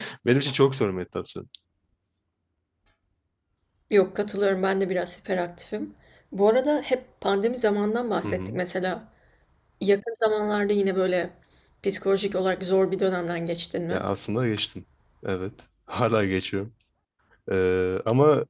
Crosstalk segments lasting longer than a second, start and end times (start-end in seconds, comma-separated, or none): none